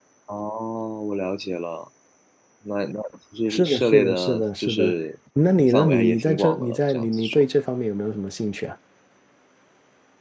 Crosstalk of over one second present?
Yes, from 3.5 s

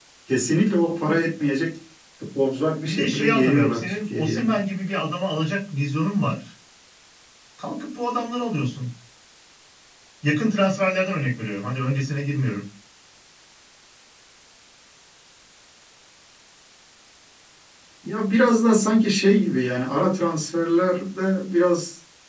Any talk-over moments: Yes, from 2.8 s

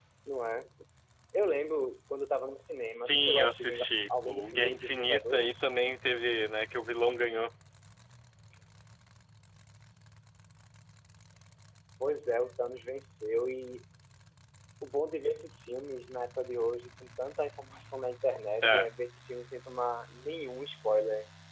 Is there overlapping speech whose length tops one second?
Yes, from 2.8 s

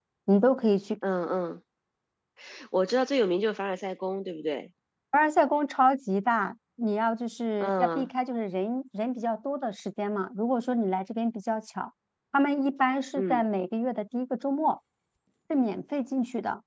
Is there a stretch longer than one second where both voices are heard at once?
No

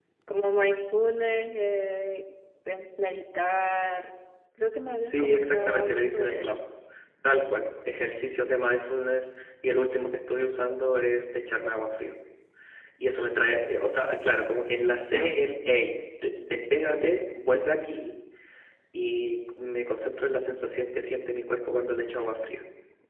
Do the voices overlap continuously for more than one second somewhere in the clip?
Yes, from 5.0 s

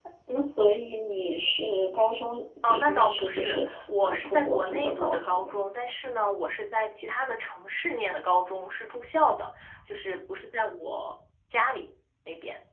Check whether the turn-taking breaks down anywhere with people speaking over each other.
Yes, from 2.6 s

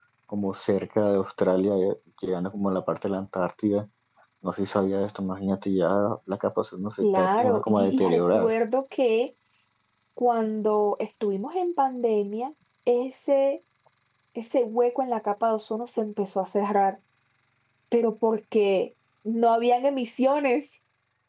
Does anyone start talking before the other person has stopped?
Yes, from 7.0 s

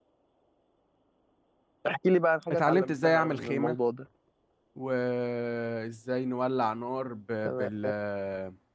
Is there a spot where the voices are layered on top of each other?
Yes, from 2.5 s

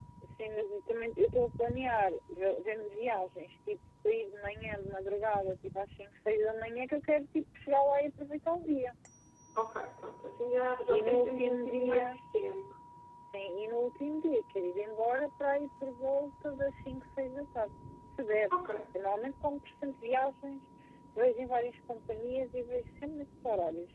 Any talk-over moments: Yes, from 10.9 s

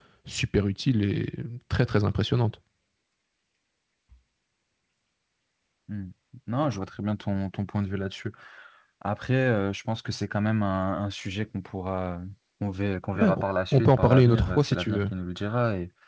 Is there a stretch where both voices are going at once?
Yes, from 13.2 s

